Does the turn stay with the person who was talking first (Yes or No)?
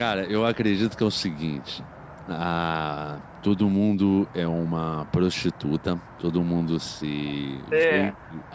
Yes